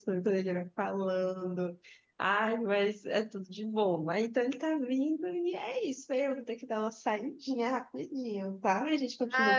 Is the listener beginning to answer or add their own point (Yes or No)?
Yes